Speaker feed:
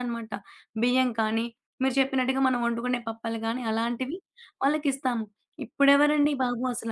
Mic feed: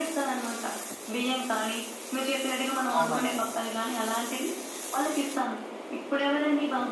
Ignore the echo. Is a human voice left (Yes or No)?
Yes